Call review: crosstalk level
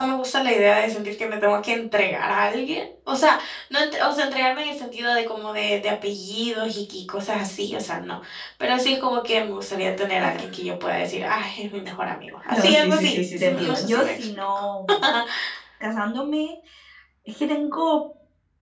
present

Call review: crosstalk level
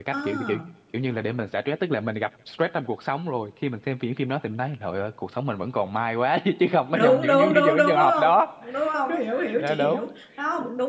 present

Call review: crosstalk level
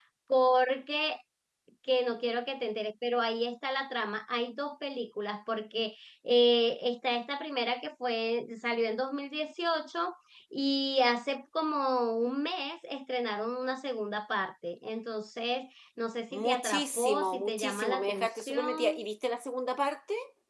present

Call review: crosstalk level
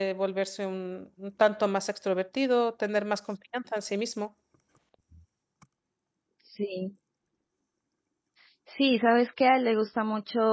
none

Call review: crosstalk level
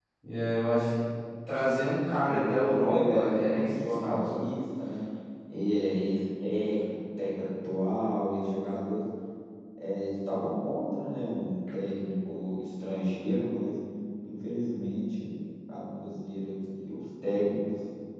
present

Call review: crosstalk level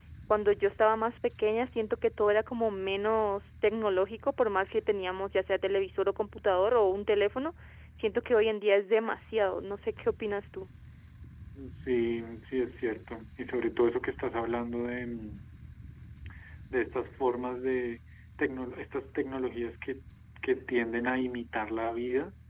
none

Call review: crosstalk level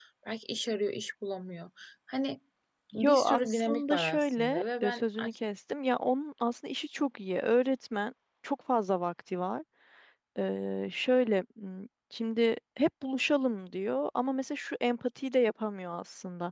present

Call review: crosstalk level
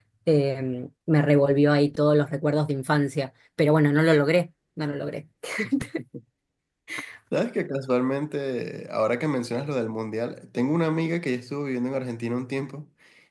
none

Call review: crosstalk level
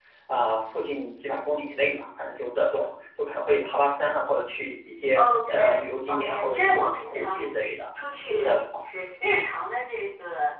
present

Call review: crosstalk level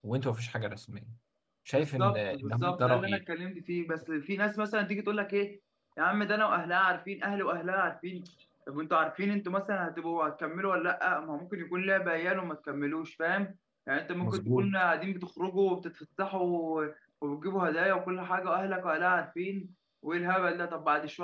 present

